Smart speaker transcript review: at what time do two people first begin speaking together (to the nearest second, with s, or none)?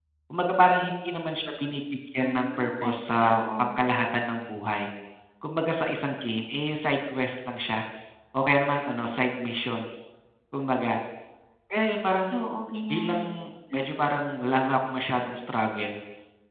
2 s